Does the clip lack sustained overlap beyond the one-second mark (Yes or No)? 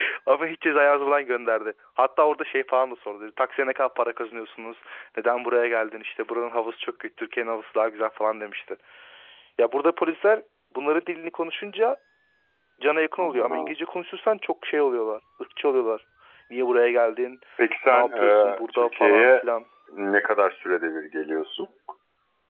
No